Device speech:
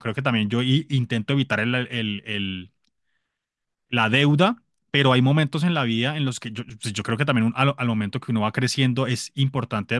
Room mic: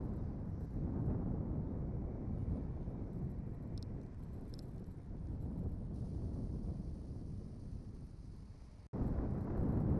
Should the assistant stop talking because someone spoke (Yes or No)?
No